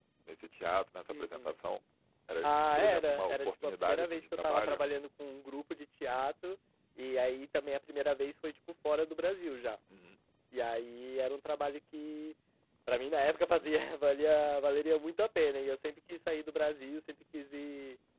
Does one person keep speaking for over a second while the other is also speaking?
Yes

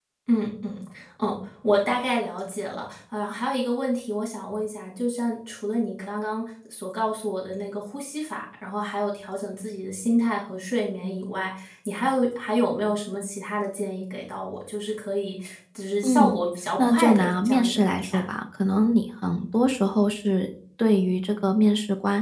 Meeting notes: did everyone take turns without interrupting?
No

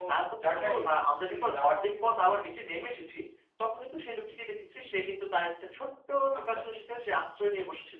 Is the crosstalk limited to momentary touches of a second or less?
No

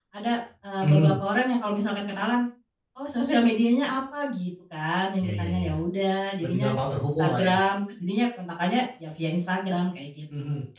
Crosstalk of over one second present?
No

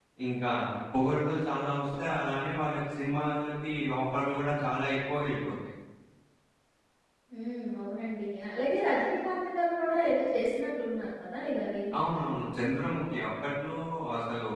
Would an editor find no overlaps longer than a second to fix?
Yes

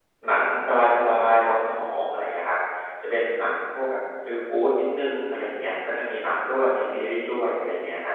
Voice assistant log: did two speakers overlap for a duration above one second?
No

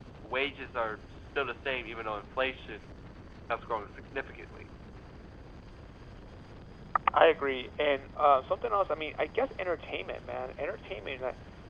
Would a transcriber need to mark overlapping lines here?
No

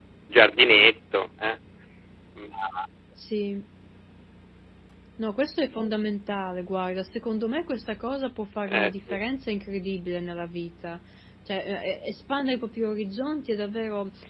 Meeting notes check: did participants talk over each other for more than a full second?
No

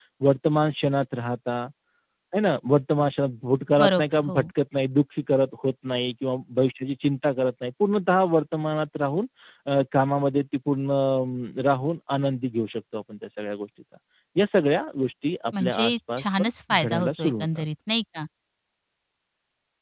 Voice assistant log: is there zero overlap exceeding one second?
No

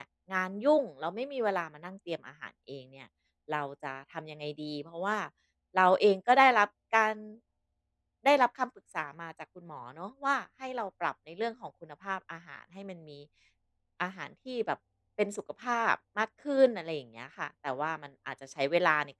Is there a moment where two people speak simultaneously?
No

